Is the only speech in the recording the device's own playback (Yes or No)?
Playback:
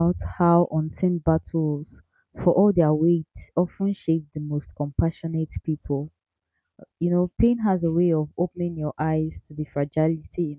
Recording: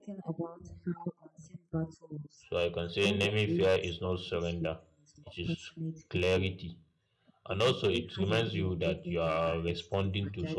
No